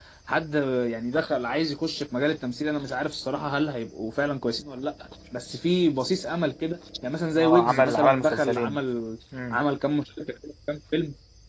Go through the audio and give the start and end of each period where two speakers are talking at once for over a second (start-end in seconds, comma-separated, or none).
7.3-8.8